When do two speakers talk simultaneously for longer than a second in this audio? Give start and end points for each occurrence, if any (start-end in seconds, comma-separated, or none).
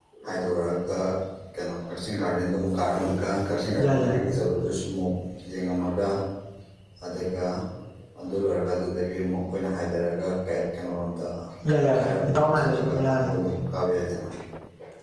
11.8-13.3